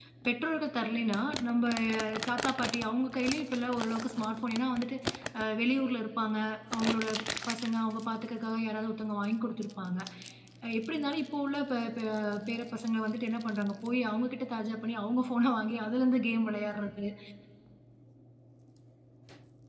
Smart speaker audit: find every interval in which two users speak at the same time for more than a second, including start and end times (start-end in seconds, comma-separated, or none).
none